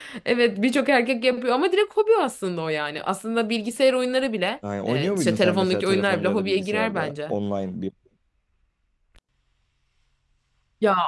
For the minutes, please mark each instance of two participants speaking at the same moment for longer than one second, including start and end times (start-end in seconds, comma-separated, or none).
4.9-7.3